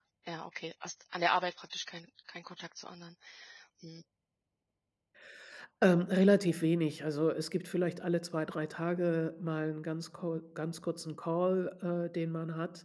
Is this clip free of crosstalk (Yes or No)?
Yes